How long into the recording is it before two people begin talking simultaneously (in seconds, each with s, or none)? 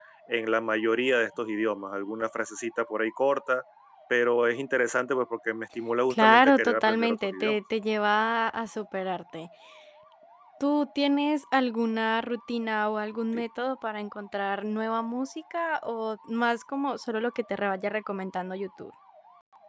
6.1 s